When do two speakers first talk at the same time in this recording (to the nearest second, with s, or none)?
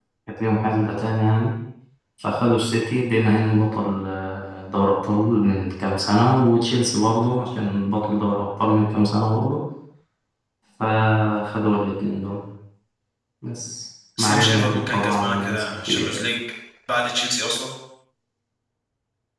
14 s